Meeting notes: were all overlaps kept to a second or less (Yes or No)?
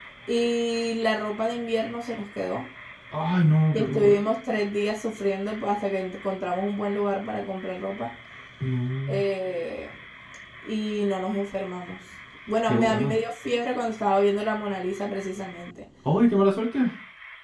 Yes